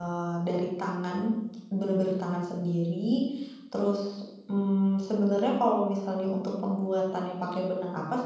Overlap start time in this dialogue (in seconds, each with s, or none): none